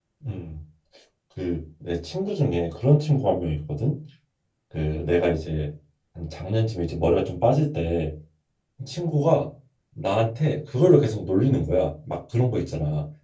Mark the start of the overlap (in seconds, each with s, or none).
none